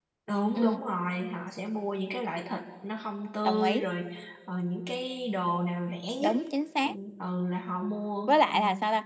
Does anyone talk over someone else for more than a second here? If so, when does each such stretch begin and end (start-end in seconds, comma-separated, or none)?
none